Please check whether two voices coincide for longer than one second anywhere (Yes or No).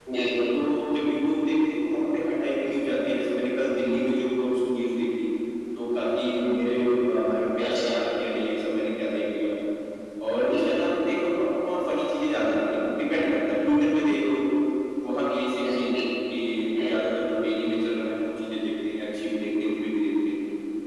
No